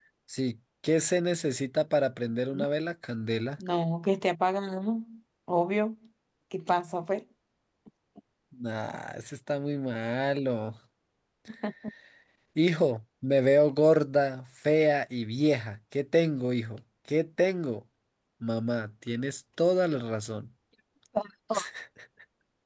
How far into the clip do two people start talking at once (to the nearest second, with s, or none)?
none